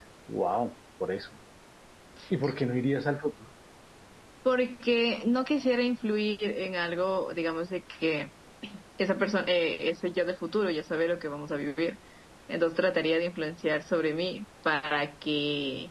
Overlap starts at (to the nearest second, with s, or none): none